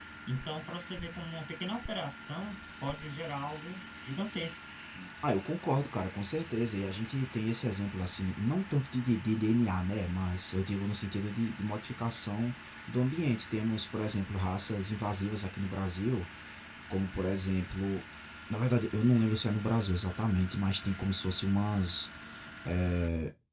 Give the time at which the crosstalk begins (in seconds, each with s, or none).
none